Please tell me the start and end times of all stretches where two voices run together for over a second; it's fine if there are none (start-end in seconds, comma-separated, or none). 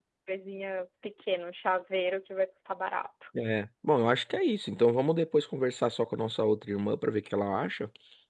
none